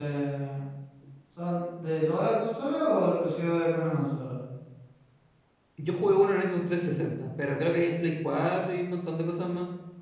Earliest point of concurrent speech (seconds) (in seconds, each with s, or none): none